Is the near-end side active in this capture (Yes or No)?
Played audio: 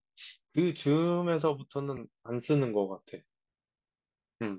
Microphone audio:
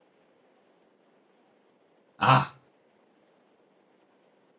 Yes